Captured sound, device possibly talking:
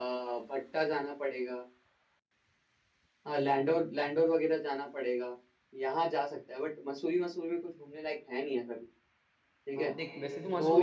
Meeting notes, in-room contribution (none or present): present